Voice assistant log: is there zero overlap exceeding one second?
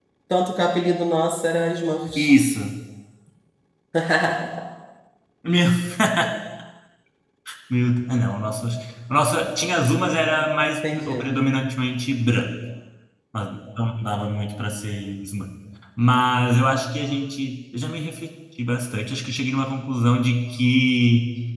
Yes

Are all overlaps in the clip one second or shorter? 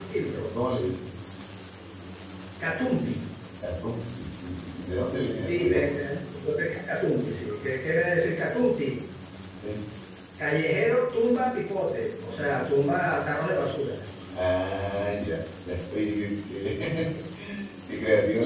Yes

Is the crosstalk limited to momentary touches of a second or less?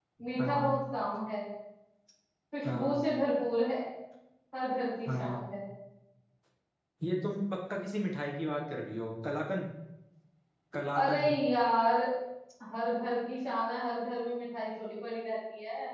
Yes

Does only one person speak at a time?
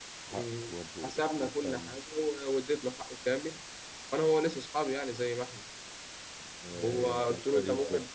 No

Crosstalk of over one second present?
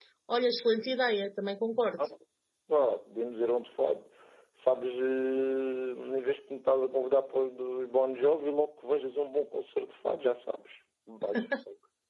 No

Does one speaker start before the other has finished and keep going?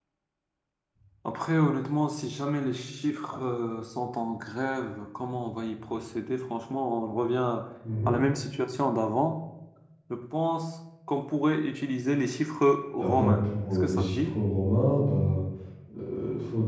Yes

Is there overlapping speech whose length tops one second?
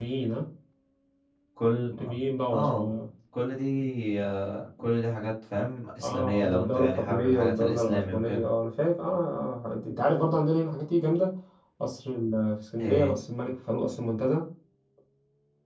Yes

